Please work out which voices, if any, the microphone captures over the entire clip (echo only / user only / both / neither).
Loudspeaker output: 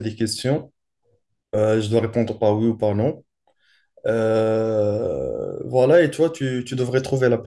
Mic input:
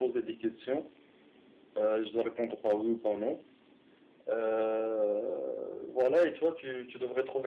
echo only